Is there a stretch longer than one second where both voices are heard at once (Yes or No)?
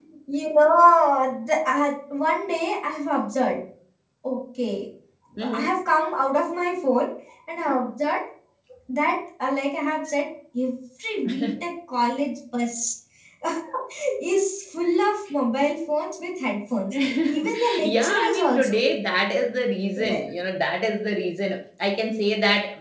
Yes